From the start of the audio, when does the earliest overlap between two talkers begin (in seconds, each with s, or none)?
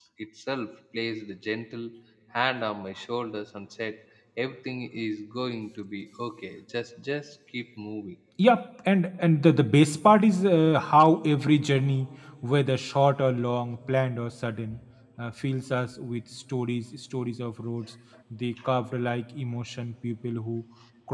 none